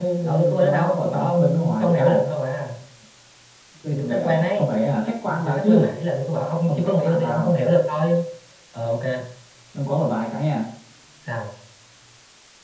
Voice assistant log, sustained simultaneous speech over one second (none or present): present